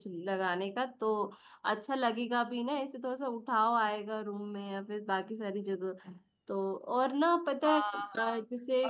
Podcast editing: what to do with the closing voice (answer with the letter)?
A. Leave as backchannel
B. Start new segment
B